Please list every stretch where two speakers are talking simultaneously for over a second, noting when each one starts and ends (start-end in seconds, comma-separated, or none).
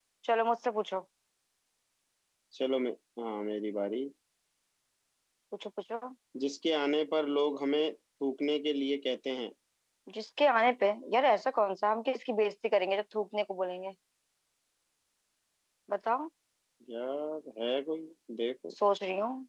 none